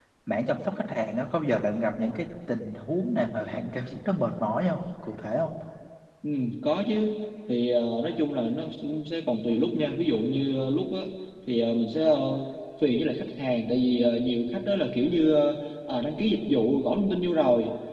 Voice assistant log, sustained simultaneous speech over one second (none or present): none